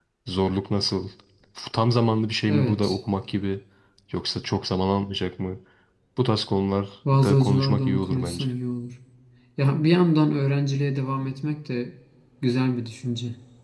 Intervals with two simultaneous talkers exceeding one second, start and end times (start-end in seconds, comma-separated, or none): 7.1-8.4